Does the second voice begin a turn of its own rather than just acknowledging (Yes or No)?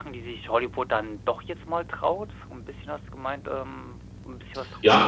Yes